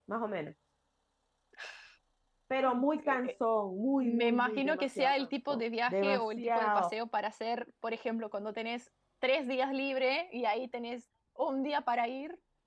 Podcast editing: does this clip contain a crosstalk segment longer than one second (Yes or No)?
Yes